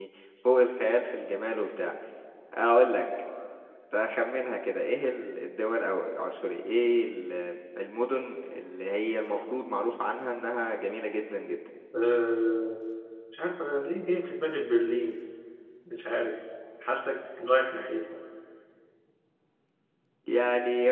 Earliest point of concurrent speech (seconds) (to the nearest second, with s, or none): none